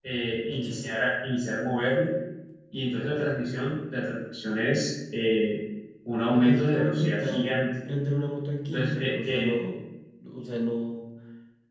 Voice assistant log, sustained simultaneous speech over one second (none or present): present